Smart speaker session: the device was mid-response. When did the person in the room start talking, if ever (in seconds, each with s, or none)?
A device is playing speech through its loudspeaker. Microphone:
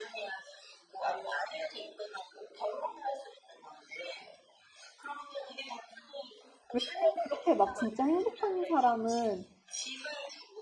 6.7 s